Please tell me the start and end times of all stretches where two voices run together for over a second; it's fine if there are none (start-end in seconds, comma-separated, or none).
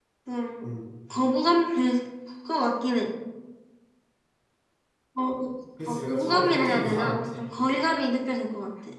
5.9-7.4